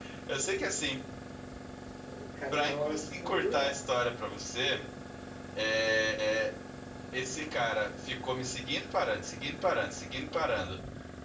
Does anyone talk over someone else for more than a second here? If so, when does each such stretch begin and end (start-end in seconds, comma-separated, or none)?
2.5-3.8